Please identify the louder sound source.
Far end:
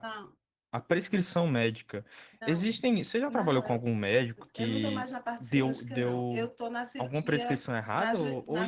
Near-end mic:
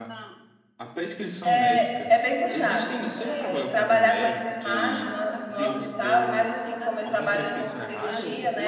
user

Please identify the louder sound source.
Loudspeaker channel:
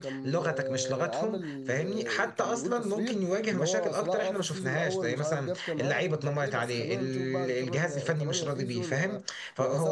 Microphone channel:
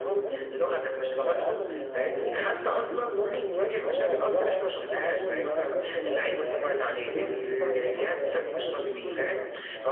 echo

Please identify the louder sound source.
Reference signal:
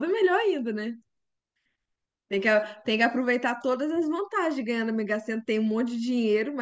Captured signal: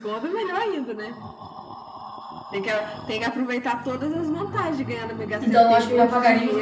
user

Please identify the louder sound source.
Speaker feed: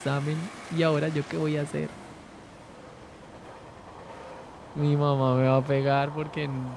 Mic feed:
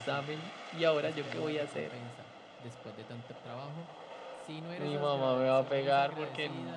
echo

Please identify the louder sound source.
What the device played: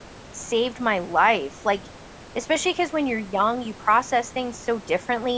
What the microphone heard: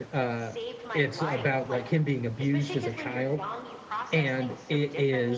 user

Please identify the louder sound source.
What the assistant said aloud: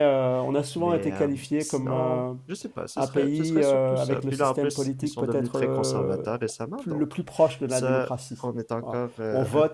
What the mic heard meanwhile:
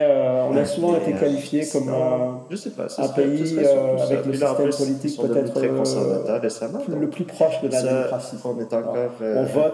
echo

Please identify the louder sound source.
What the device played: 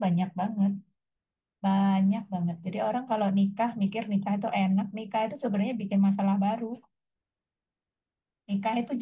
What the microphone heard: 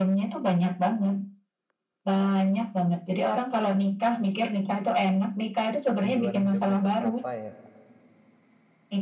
echo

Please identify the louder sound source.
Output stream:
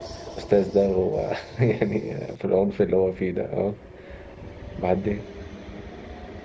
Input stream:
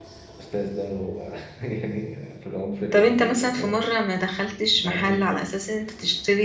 user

